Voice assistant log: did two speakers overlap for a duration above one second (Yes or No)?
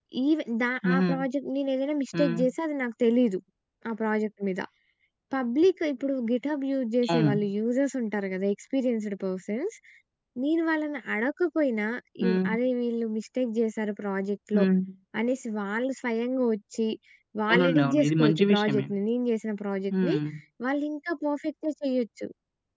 Yes